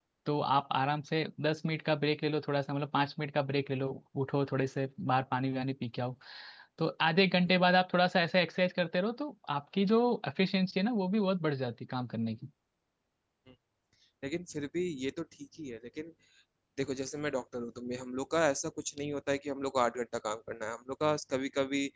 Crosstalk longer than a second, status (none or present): none